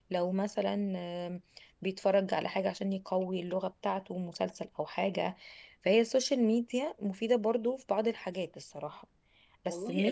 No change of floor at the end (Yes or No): No